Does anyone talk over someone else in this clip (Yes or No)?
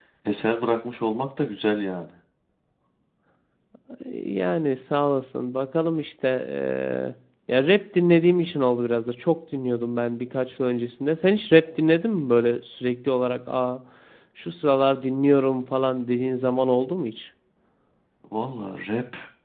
No